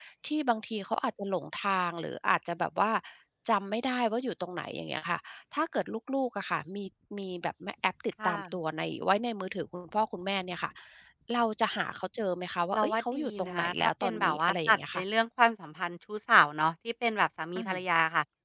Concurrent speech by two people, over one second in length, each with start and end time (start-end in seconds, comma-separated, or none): 12.7-15.0